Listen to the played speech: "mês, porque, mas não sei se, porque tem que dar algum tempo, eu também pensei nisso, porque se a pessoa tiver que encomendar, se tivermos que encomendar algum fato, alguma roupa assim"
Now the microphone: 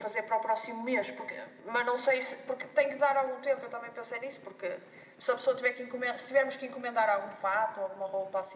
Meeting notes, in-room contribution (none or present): none